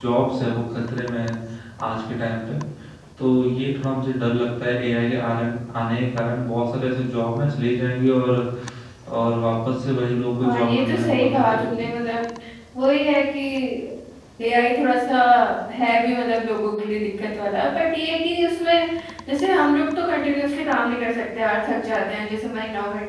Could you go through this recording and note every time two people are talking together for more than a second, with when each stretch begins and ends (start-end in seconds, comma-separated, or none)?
10.4-11.9